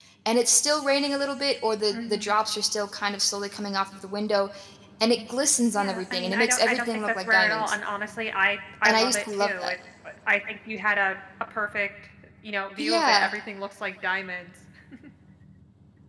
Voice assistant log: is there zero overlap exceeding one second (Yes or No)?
No